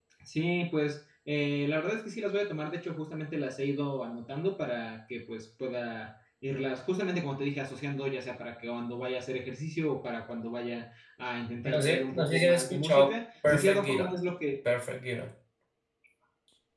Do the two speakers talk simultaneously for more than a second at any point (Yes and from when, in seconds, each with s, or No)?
Yes, from 11.6 s